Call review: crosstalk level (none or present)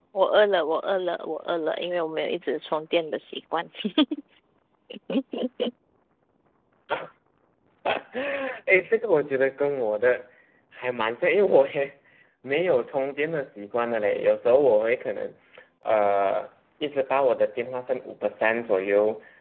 none